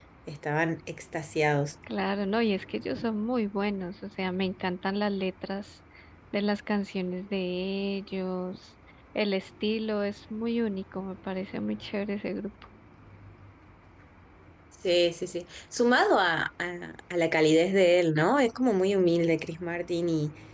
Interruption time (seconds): none

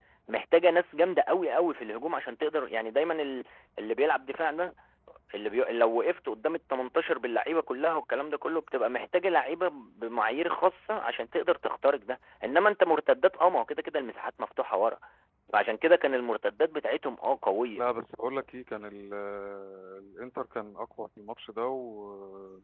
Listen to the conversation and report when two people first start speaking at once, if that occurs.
none

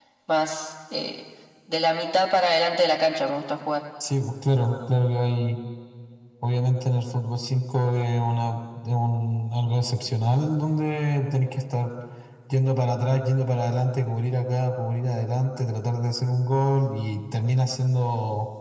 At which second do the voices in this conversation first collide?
none

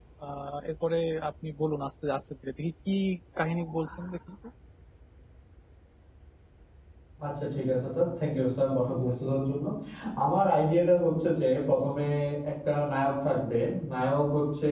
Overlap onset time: none

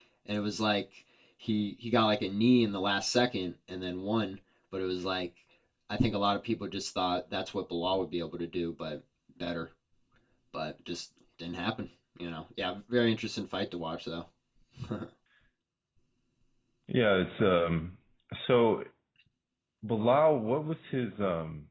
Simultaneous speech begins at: none

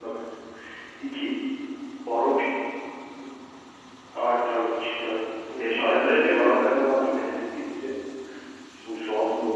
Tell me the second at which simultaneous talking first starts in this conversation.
5.6 s

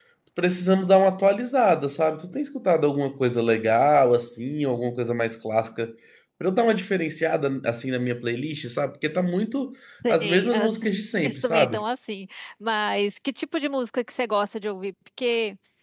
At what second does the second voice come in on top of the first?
10.1 s

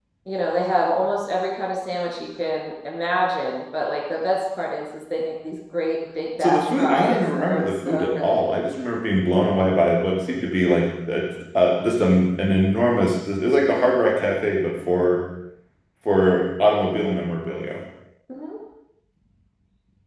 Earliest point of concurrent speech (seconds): 6.4 s

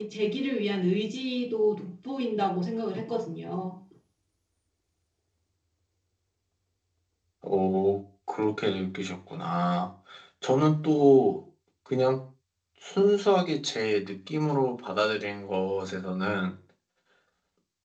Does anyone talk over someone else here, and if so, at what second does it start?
none

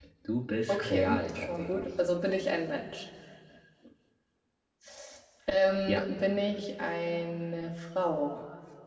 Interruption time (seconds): 0.7 s

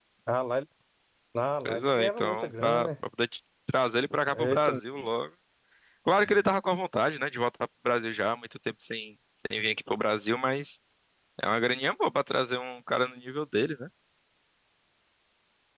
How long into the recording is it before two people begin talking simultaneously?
1.6 s

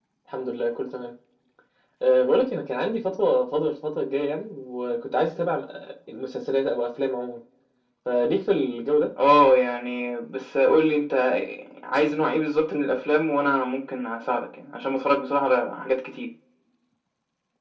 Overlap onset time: none

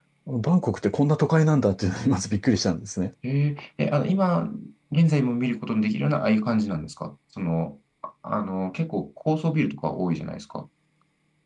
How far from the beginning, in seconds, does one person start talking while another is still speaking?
none

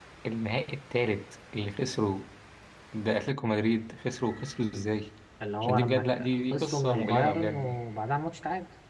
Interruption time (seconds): 5.6 s

